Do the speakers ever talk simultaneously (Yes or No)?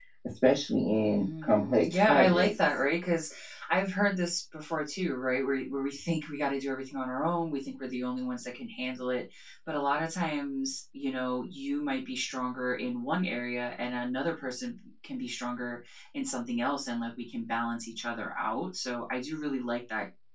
Yes